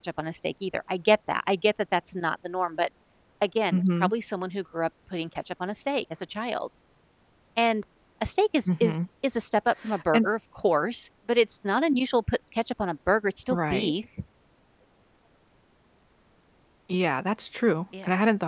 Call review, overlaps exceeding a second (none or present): none